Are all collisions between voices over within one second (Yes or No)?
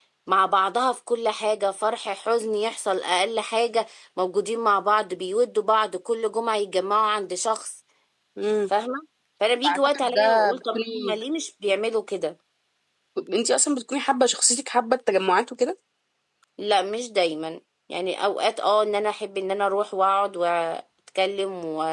No